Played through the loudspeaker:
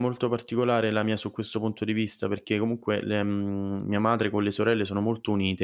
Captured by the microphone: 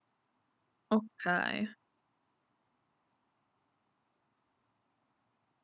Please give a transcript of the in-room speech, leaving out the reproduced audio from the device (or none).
Okay.